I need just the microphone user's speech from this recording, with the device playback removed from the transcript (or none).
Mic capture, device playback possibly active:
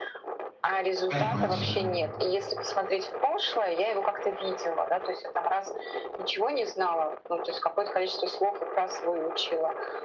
Понимаю тебя.